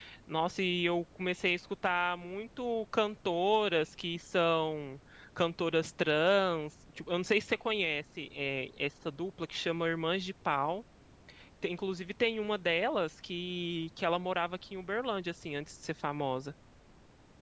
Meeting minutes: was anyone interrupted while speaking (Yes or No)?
No